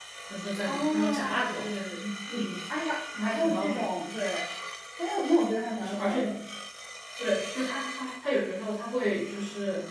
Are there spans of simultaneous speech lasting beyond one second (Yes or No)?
Yes